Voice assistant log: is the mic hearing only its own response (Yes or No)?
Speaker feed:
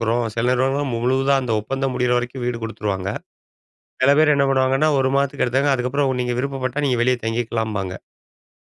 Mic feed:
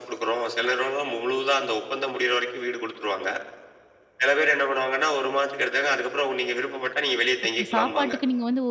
No